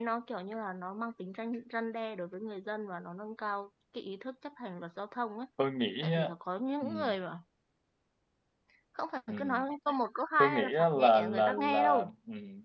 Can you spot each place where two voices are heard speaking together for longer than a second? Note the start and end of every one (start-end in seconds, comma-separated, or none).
10.4-12.1